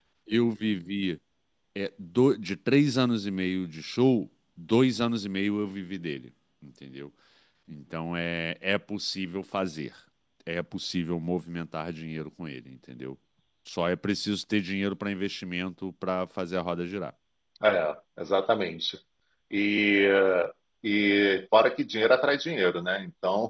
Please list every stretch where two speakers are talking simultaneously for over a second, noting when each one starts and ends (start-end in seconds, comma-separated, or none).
none